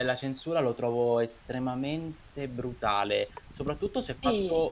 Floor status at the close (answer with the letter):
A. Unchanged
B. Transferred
A